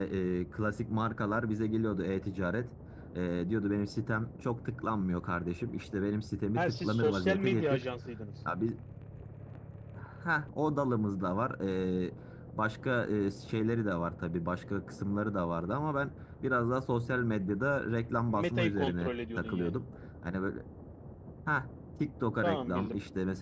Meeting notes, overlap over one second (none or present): present